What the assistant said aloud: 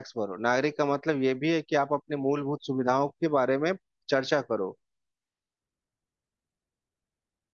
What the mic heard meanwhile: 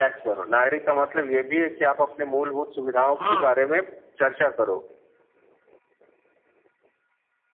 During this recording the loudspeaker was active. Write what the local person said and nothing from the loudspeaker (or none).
हाँ